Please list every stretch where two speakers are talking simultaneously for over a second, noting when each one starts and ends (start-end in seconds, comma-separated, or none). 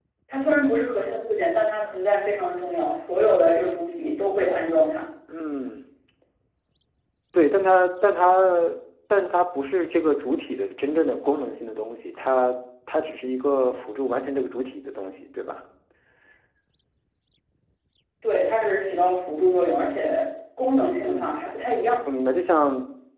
none